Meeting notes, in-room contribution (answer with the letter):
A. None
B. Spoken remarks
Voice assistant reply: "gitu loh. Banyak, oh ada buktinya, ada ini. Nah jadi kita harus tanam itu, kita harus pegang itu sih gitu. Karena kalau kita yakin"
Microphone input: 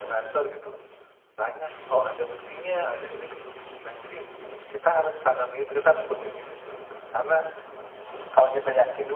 A